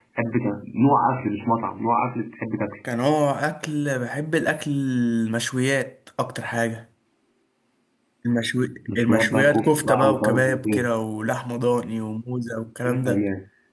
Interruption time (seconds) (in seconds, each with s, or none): 8.9 s